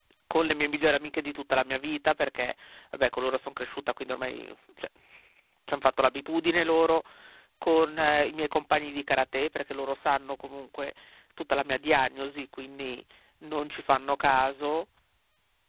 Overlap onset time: none

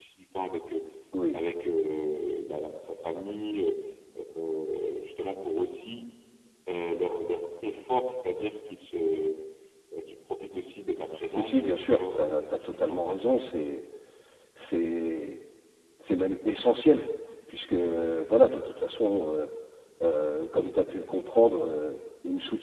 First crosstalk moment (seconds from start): 11.3 s

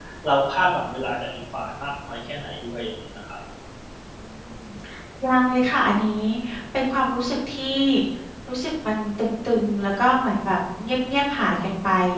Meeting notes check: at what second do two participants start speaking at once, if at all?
none

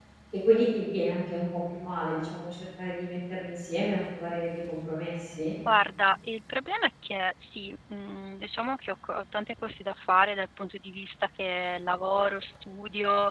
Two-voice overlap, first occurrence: none

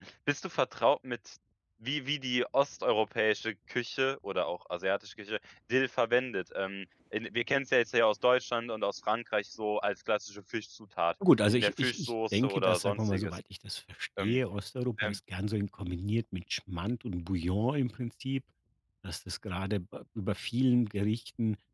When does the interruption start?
11.5 s

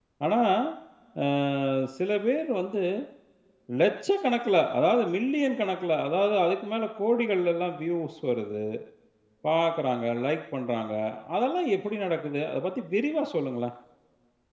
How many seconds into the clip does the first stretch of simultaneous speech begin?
none

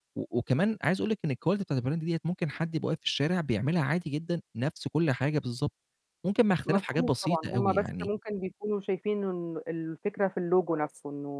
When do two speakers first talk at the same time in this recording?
6.7 s

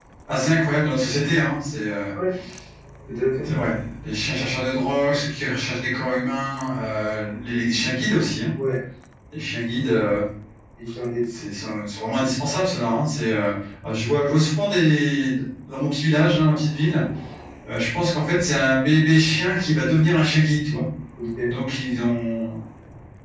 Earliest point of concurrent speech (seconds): none

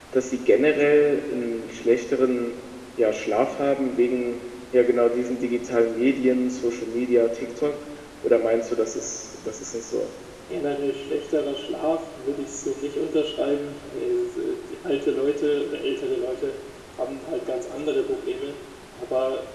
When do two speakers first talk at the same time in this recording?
none

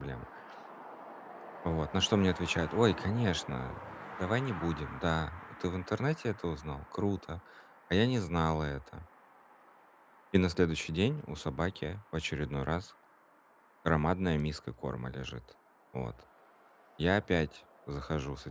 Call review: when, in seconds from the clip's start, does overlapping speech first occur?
none

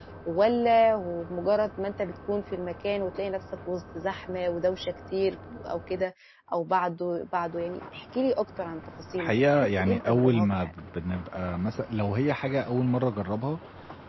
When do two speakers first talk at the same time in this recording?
9.2 s

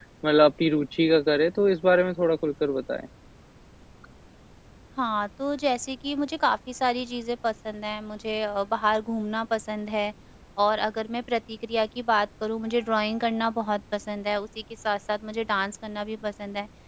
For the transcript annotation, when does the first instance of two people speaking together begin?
none

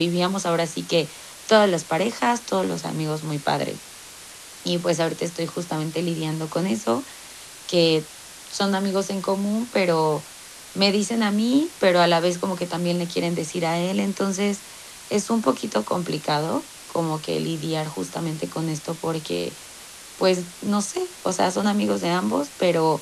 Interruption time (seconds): none

